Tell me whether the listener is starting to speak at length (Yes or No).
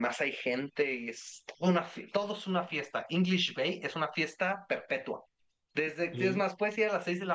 No